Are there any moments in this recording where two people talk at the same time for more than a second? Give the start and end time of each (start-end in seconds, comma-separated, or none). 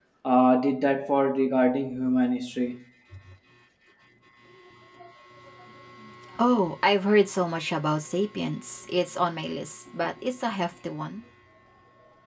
none